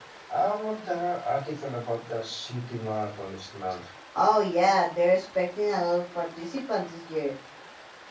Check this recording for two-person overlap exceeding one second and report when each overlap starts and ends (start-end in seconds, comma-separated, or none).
none